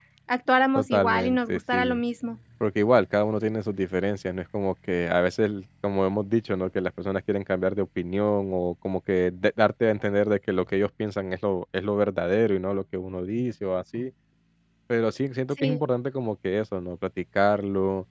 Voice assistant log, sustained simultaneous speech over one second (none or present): present